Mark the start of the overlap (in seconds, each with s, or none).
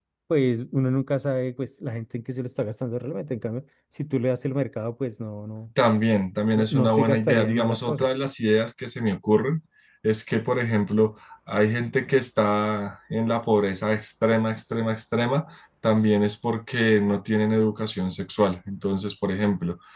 6.5 s